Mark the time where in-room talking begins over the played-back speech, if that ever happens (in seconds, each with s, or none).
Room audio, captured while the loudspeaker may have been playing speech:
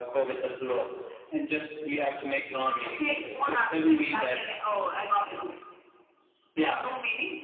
none